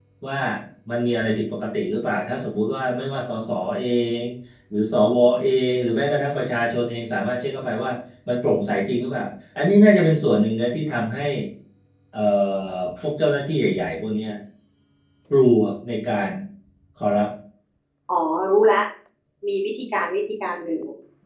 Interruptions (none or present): none